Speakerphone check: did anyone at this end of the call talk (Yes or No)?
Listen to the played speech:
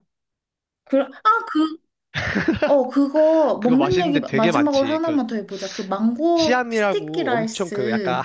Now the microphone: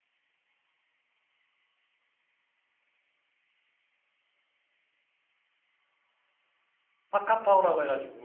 Yes